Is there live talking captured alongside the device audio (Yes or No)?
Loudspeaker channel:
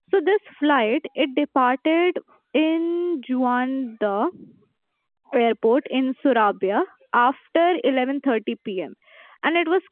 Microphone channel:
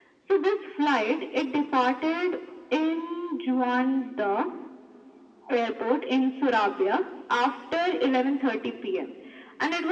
No